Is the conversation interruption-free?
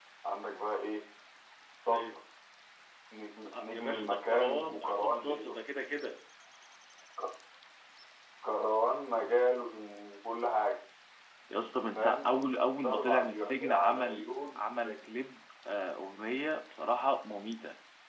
No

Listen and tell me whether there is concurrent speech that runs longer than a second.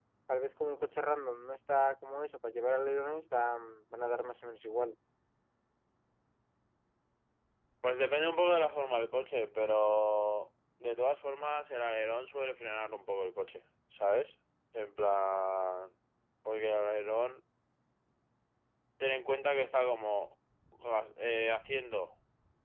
No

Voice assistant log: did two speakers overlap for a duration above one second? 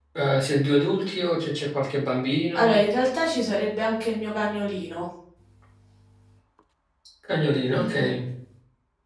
No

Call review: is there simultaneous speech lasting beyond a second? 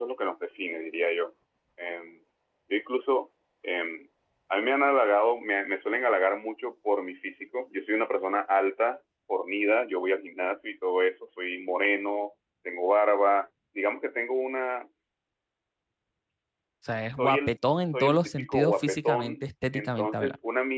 Yes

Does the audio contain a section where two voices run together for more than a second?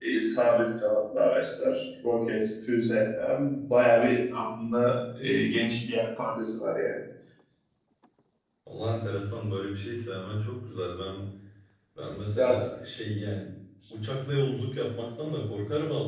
No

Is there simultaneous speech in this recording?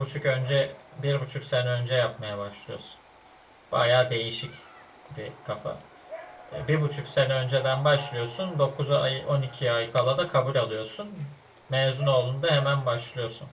No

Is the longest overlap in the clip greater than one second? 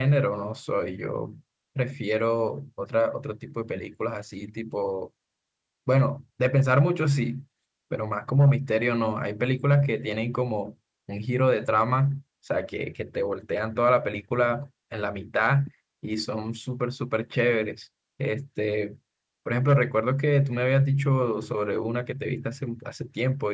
No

